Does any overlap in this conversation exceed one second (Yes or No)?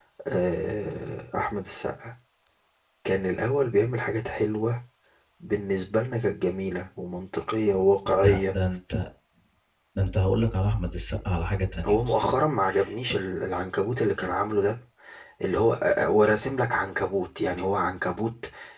No